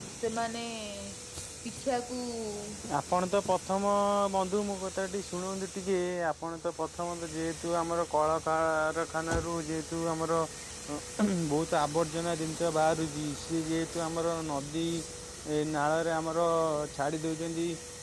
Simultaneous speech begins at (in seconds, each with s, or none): none